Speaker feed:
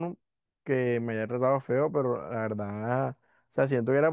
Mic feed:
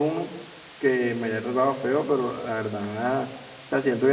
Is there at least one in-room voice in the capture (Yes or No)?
No